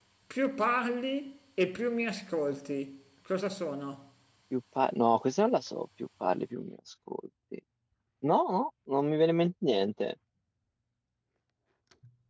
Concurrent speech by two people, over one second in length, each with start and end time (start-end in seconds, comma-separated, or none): none